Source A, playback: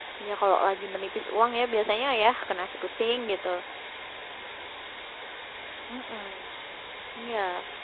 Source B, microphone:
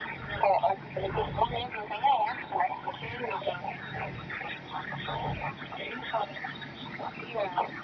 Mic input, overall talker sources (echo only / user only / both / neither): echo only